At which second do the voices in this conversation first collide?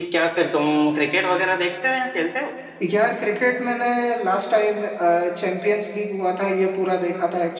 none

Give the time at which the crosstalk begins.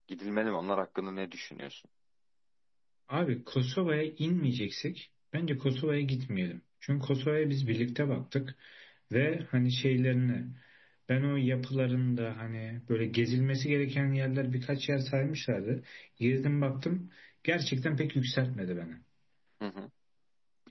none

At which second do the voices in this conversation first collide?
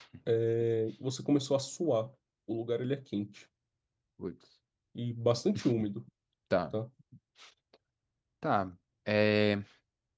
none

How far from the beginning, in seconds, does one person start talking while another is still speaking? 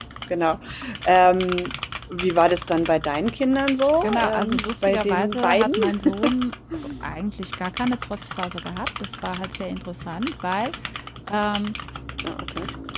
4.0 s

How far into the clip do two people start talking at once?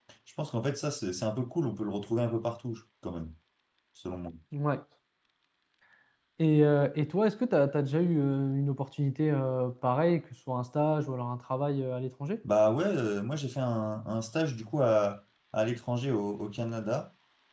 none

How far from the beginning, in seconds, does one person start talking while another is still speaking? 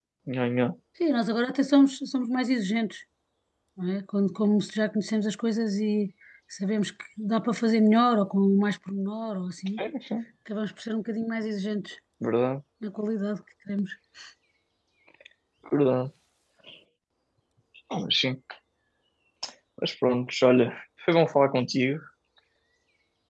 none

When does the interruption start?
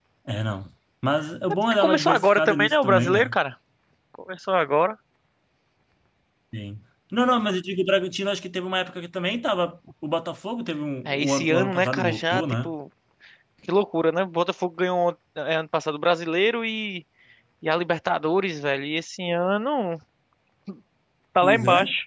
1.7 s

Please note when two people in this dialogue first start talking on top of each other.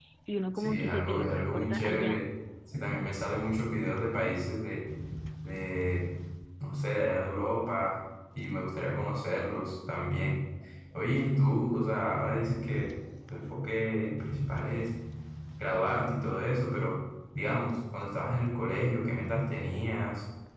0.6 s

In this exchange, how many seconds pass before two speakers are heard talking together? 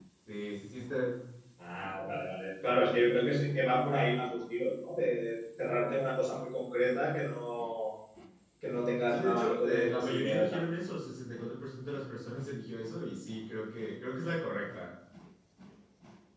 9.1 s

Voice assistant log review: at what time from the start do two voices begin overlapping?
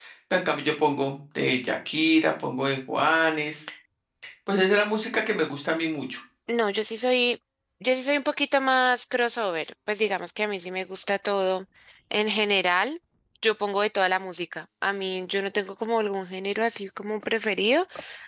none

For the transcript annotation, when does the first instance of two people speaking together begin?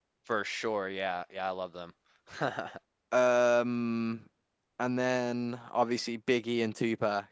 none

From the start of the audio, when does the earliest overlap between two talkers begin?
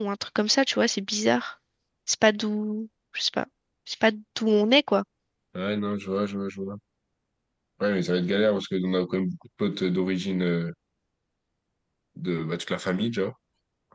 none

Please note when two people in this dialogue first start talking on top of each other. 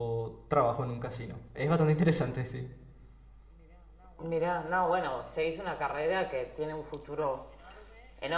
none

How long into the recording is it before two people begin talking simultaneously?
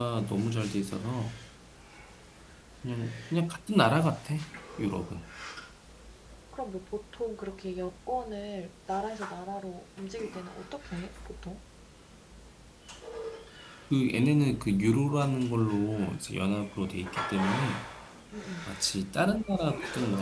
none

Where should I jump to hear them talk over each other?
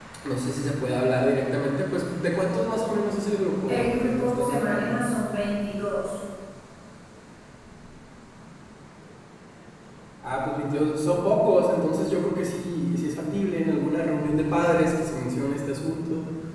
3.7 s

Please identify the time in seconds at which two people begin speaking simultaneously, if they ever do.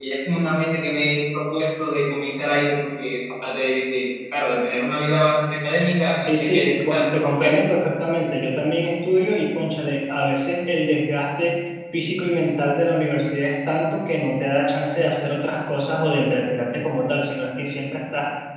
6.2 s

